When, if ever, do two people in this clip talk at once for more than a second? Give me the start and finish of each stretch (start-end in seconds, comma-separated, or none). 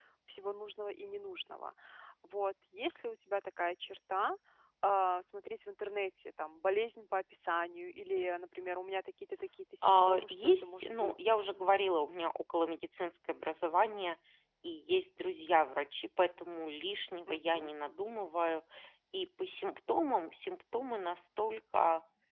9.8-11.1